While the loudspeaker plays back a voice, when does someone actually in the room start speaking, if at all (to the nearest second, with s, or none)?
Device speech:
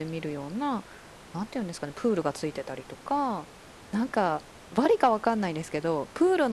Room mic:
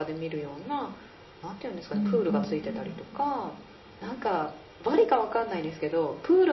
2 s